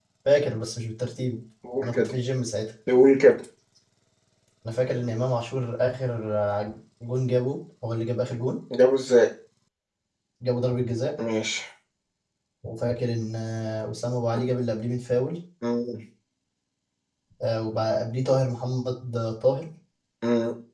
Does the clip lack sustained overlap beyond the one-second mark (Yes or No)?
Yes